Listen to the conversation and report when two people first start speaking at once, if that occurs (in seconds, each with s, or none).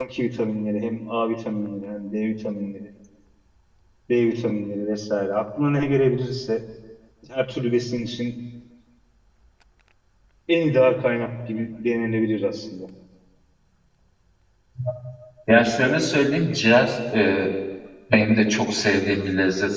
none